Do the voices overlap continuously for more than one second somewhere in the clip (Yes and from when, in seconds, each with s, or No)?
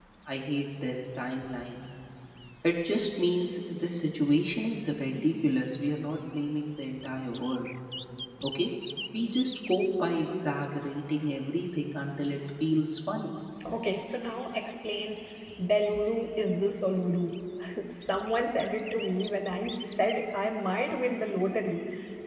No